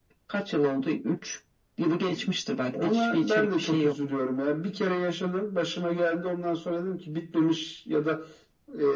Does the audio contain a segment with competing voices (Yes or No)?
Yes